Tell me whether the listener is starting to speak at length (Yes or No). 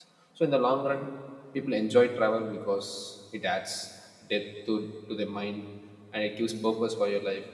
No